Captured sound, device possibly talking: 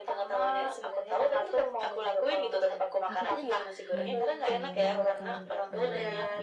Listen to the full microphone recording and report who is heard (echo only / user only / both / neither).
both